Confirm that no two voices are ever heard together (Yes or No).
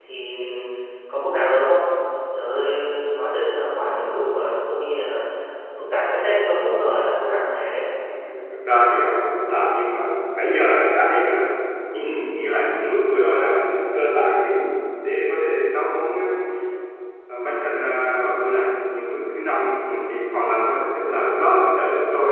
Yes